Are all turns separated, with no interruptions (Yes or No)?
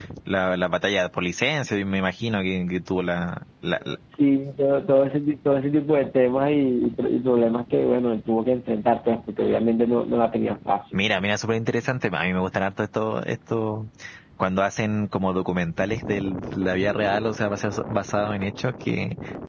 Yes